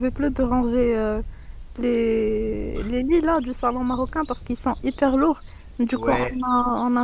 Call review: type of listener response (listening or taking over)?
listening